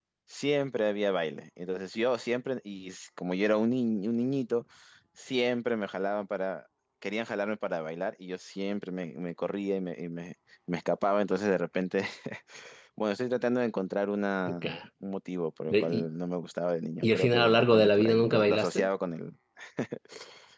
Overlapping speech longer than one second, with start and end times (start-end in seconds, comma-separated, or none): 17.0-18.9